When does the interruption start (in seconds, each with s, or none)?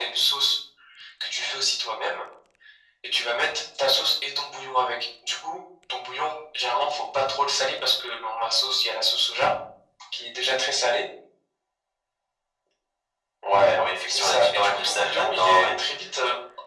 14.1 s